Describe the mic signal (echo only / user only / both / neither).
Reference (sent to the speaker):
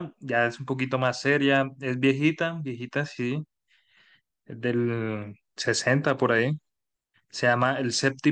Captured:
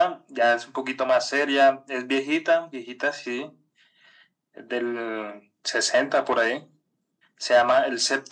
echo only